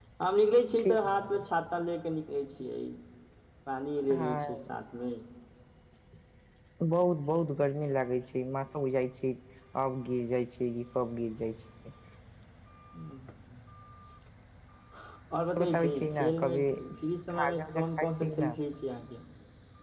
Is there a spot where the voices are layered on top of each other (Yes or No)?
Yes